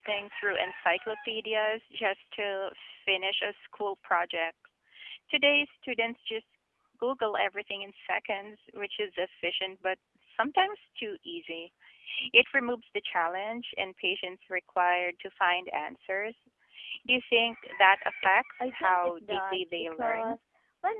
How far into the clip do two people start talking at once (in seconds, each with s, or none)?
18.6 s